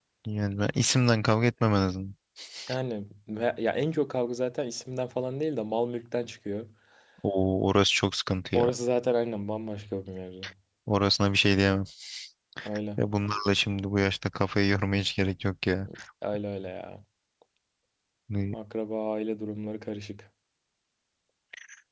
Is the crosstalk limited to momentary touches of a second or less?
Yes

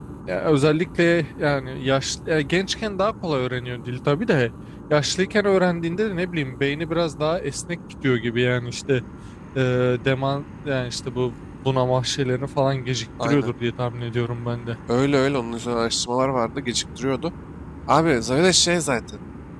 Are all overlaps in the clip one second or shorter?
Yes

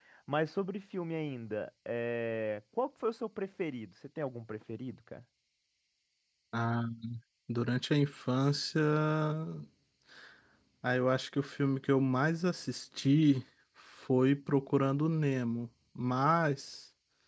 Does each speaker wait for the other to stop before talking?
Yes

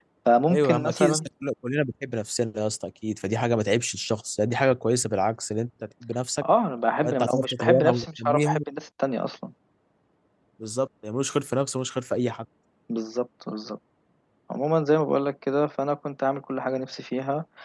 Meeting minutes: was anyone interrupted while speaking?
Yes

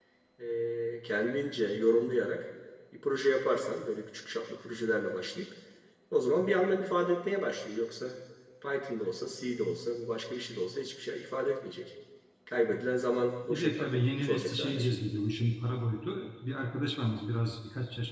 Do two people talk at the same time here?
Yes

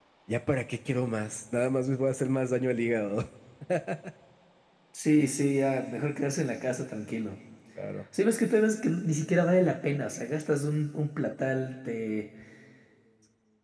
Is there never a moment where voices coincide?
Yes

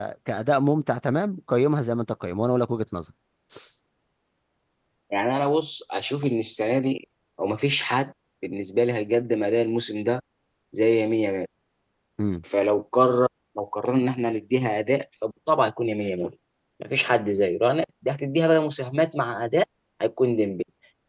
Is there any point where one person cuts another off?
No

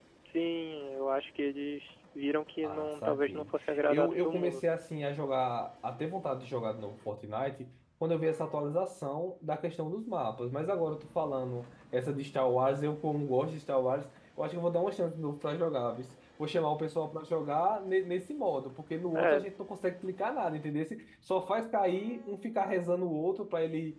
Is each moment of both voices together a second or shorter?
No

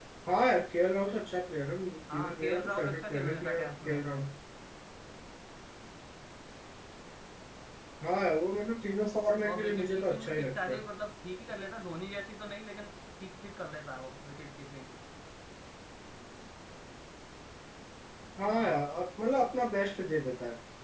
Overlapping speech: Yes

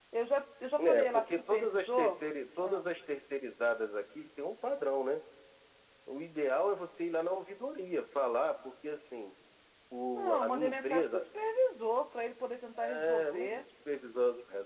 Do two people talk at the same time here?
Yes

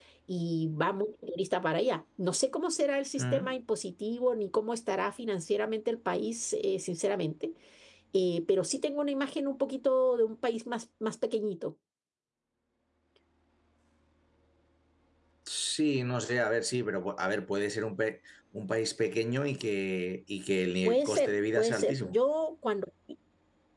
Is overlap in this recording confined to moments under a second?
No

